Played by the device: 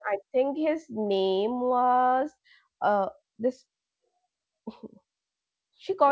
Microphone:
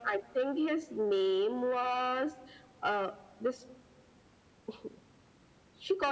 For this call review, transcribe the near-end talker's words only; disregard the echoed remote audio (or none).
none